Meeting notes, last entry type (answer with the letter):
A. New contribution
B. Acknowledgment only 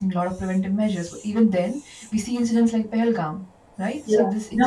B